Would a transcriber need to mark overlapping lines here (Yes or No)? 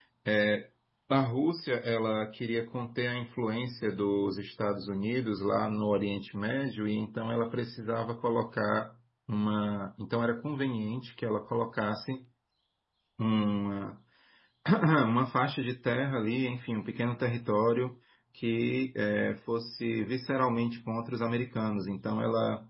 No